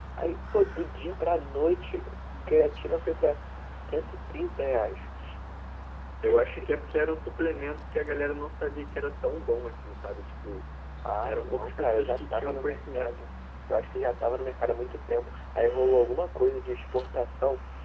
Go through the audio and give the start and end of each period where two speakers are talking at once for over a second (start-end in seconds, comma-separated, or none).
11.2-13.2